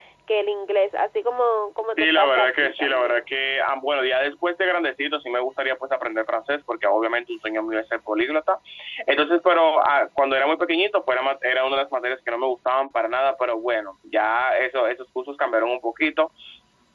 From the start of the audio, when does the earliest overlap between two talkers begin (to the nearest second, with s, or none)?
2 s